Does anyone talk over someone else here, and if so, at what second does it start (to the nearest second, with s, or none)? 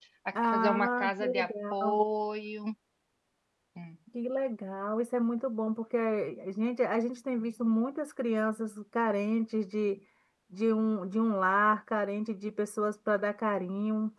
1 s